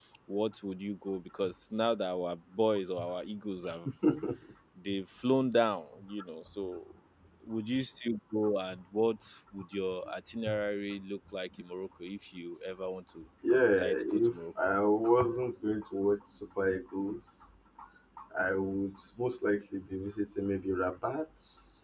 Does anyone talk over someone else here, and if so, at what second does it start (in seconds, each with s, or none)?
13.4 s